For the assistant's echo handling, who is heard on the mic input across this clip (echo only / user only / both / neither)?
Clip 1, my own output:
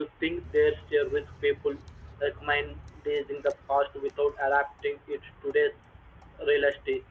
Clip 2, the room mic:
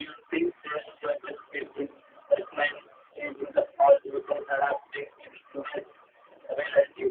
echo only